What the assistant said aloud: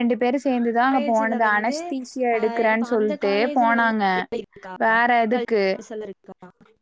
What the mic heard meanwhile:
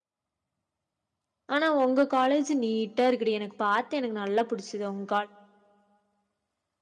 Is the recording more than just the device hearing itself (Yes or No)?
Yes